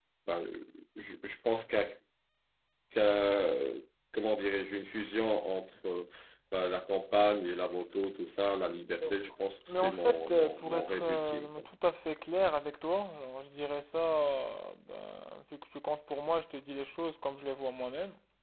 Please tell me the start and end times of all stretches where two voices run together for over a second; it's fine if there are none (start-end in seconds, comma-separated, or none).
9.7-11.6